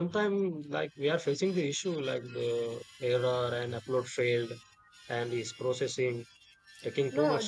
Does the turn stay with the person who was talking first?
No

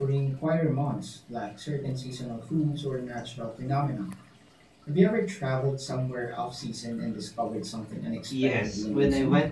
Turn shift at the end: Yes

